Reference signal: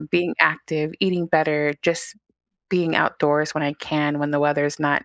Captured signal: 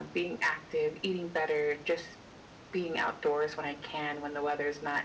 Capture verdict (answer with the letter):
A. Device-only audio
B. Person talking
A